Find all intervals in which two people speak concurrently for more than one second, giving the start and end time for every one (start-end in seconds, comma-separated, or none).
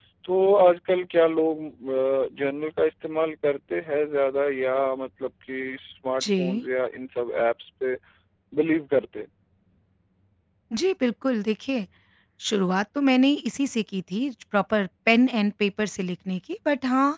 none